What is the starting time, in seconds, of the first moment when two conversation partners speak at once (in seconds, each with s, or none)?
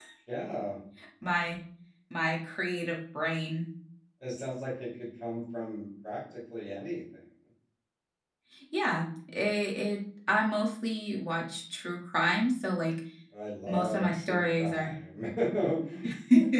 13.7 s